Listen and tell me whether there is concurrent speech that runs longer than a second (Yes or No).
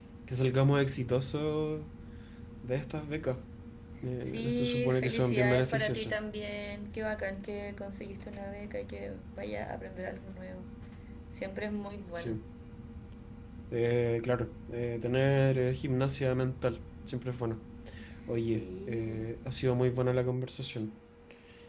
Yes